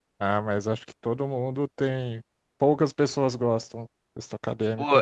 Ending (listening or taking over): taking over